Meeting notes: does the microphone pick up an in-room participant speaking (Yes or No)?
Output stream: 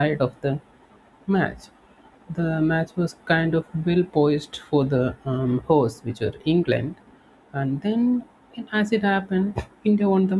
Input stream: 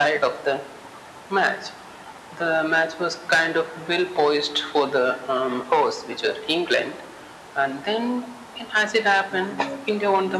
Yes